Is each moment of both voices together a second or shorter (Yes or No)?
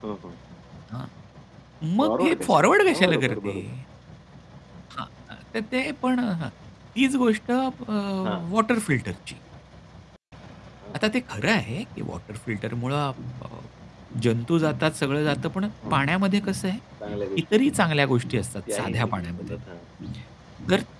No